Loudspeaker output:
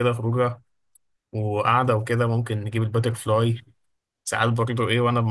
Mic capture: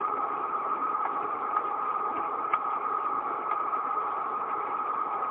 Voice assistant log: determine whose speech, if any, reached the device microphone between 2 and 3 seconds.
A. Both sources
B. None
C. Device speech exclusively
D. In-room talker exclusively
B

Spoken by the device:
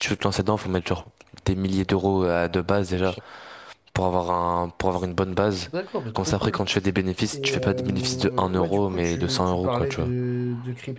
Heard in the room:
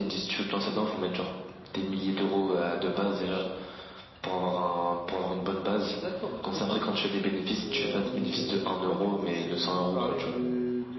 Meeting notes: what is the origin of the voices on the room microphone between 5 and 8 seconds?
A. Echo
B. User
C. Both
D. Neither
A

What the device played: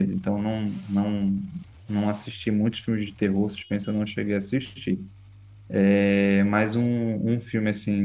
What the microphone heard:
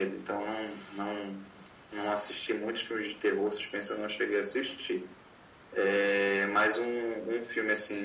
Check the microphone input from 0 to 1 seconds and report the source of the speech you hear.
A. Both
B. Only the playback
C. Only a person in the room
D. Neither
B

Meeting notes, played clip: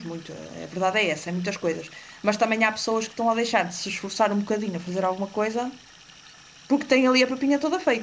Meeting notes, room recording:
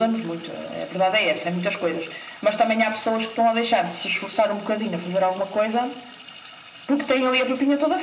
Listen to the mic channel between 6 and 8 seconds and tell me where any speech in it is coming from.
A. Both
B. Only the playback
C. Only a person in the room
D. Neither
B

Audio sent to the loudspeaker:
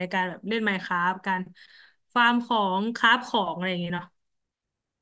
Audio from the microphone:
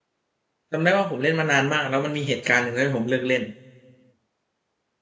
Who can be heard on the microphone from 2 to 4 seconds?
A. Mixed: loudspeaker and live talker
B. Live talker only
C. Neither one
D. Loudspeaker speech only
B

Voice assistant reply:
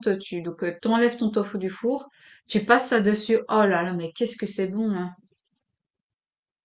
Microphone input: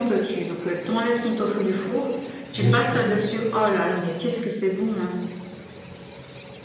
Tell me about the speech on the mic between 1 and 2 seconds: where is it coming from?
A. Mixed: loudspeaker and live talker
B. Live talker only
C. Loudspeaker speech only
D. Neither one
C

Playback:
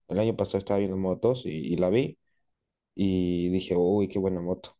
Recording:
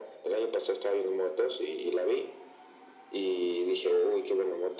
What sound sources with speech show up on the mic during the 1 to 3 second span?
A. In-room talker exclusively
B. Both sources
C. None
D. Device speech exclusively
D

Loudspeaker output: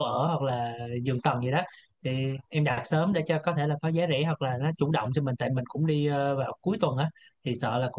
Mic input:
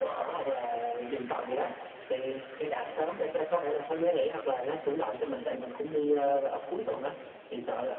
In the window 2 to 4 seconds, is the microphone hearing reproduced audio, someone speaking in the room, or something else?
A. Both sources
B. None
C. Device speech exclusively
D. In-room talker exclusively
C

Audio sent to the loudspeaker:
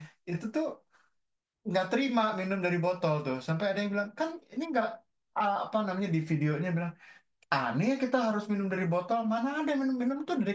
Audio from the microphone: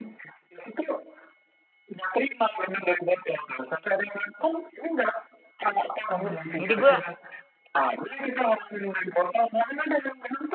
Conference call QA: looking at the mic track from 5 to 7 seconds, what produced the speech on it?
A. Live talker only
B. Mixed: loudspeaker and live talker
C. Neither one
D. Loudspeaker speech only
B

